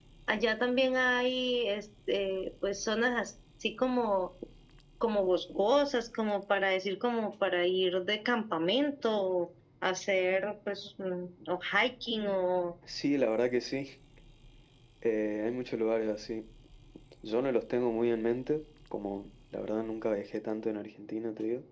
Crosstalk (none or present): none